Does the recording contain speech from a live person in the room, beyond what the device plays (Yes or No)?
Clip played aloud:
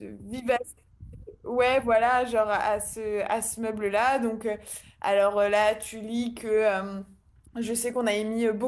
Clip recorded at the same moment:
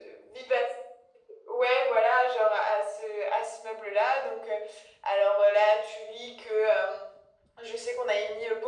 No